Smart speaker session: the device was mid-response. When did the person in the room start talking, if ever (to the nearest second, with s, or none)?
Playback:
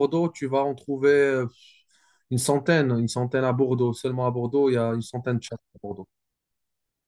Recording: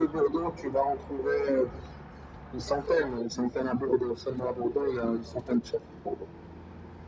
none